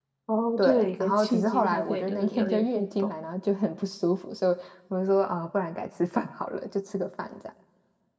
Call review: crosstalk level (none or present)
present